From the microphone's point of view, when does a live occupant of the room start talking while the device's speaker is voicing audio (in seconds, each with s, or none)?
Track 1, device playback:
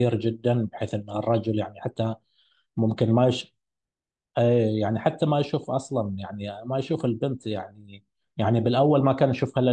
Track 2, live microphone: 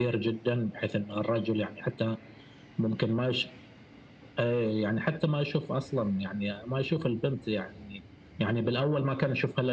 none